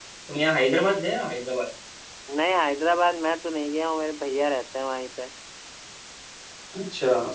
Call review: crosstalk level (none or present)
none